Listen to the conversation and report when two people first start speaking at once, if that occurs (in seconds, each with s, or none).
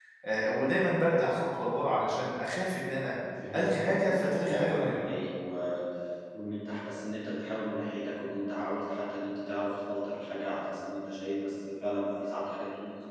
3.5 s